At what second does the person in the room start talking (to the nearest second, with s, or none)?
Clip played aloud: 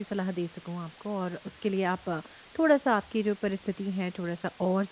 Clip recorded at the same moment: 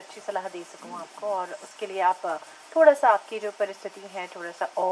none